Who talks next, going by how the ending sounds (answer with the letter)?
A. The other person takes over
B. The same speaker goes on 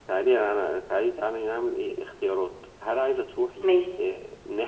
B